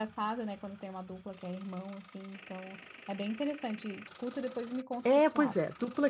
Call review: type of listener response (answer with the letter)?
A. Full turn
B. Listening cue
A